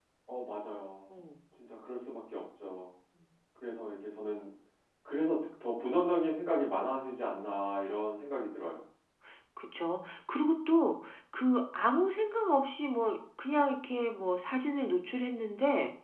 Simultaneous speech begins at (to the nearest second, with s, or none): none